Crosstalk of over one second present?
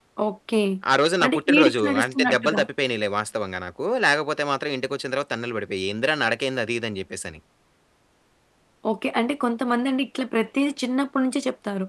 Yes, from 1.2 s

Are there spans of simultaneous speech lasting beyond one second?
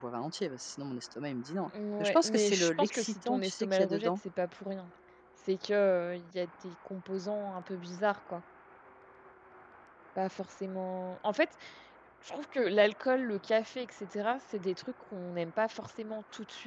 Yes, from 2.0 s

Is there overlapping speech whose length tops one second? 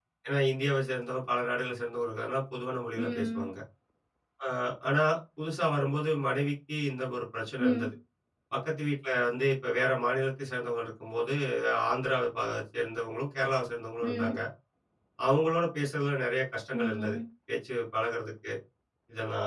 No

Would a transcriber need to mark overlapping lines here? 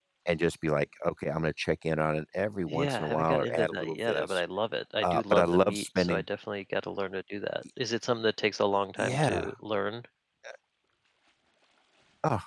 Yes, from 2.7 s

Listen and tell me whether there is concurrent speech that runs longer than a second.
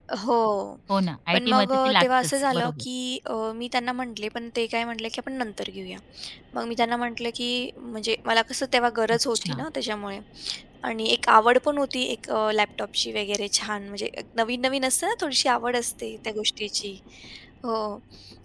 Yes, from 1.3 s

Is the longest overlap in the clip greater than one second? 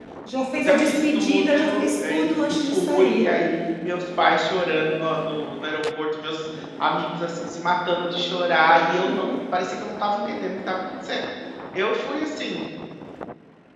Yes, from 0.6 s

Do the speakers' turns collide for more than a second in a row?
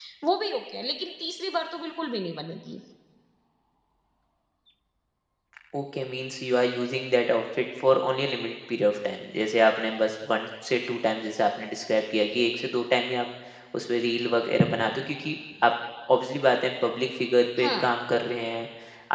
No

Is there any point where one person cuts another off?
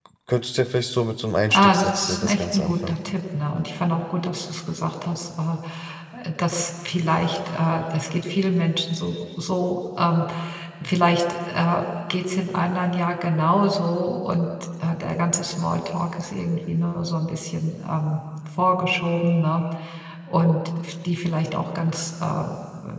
Yes, from 1.5 s

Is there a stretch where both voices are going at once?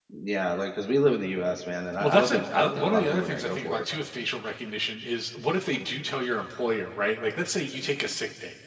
Yes, from 2.0 s

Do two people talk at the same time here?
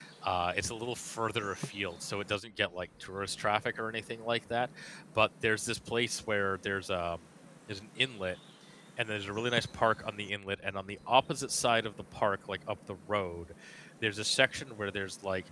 No

